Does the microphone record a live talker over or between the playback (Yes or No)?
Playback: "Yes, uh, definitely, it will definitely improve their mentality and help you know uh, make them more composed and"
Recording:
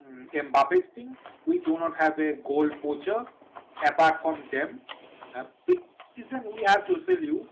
Yes